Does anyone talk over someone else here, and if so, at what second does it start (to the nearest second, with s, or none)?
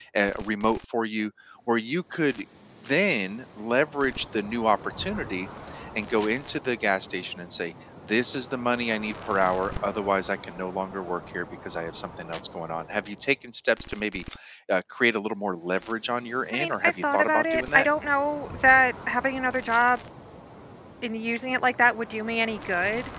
17 s